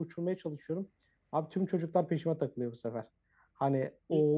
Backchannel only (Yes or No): No